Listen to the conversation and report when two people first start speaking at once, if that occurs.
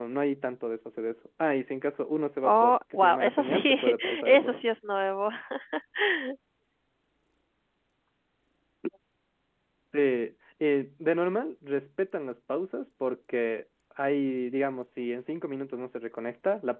2.4 s

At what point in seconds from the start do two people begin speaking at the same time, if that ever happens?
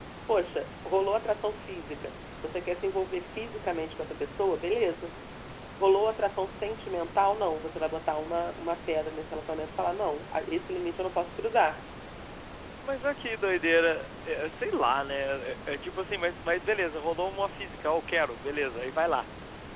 none

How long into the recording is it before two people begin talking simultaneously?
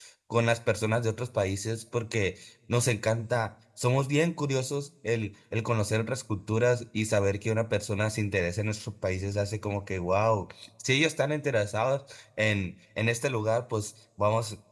none

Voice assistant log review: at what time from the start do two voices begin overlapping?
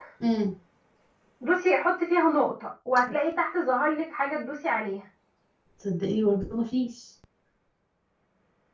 none

